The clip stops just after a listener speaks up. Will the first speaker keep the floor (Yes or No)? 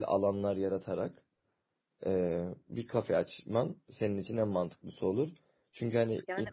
Yes